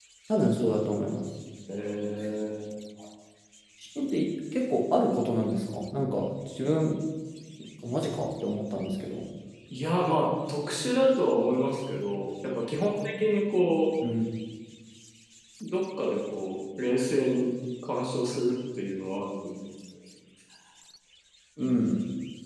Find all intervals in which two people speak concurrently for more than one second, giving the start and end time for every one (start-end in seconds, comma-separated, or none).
none